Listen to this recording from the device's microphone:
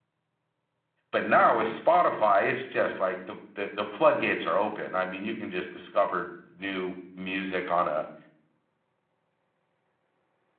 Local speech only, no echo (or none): But now with Spotify, it's just like the, the the floodgates are open. I mean, you can just discover new music on a